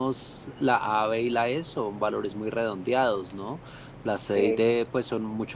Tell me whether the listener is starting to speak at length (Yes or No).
No